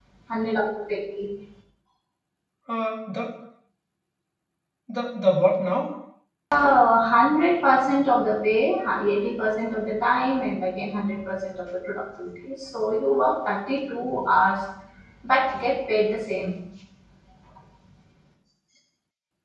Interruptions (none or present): none